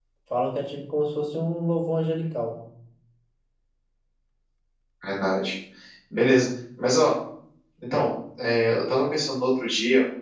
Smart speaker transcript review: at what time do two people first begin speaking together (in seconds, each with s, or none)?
none